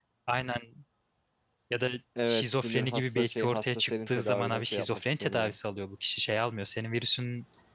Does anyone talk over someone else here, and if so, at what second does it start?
2.2 s

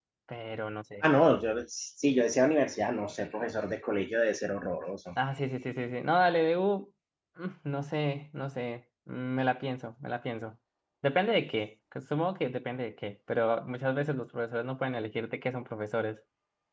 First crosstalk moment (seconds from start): none

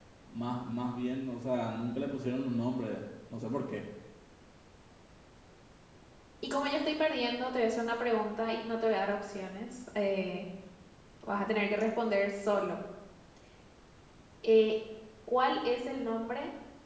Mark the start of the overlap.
none

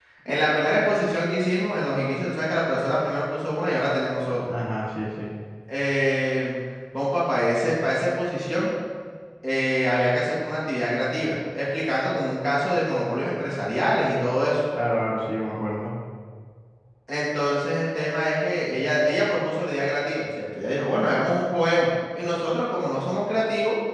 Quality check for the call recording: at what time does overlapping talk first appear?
none

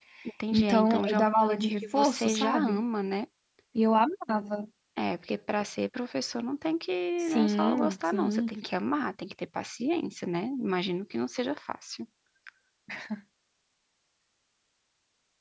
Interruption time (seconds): 0.5 s

